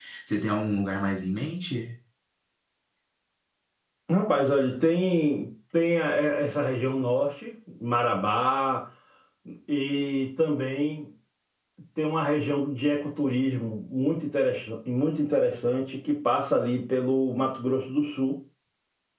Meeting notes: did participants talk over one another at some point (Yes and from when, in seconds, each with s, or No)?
No